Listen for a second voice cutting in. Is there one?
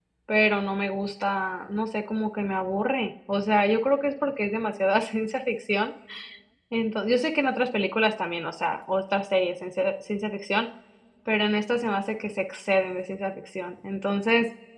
No

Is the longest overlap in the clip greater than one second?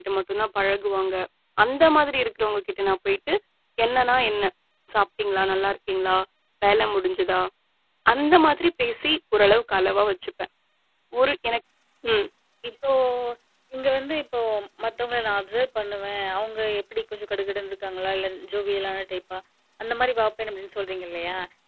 No

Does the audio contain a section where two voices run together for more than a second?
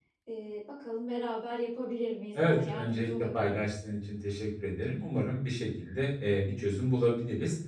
Yes, from 2.4 s

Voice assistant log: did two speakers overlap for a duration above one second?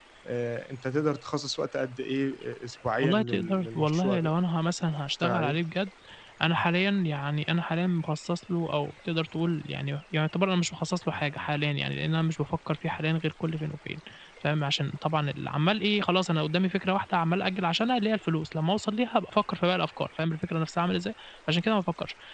Yes, from 3.0 s

